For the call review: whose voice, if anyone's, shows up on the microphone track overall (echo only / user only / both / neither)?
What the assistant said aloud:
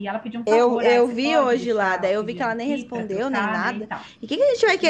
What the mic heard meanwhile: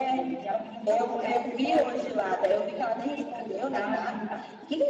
echo only